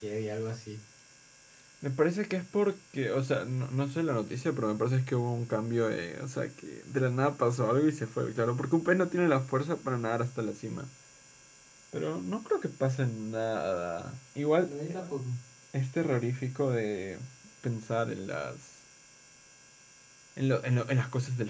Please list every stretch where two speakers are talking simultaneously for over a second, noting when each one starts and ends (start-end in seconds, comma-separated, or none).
none